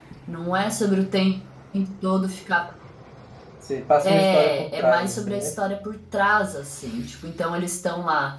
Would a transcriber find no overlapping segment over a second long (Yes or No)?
No